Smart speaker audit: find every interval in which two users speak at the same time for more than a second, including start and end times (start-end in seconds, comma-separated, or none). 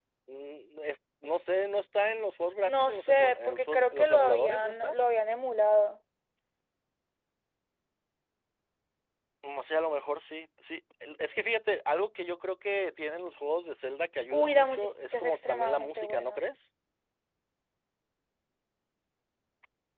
2.6-5.0, 14.3-16.4